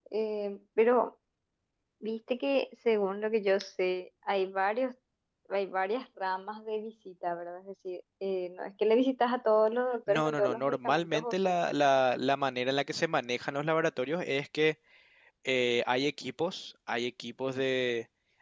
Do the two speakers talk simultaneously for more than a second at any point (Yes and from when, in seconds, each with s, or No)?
Yes, from 10.1 s